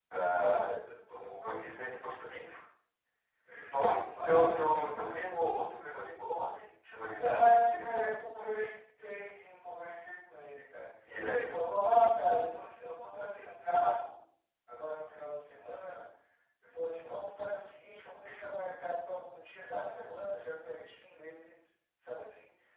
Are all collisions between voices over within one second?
No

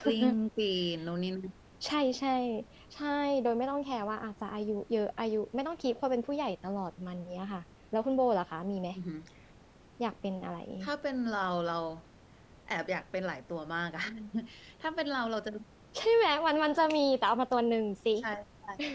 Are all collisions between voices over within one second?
Yes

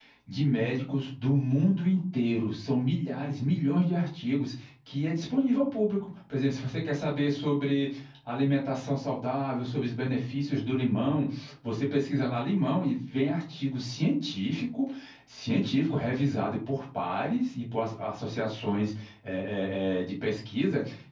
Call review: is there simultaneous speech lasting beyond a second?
No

